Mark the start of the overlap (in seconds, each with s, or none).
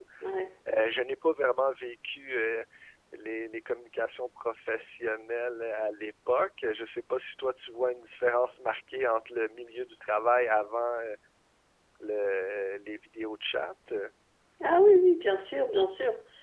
none